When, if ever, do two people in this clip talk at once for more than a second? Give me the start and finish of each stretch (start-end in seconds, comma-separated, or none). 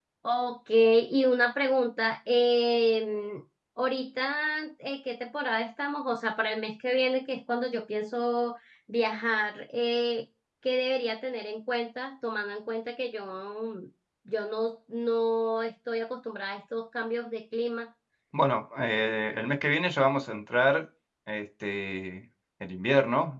none